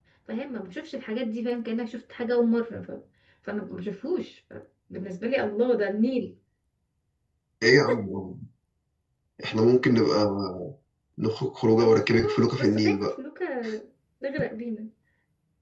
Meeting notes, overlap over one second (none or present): present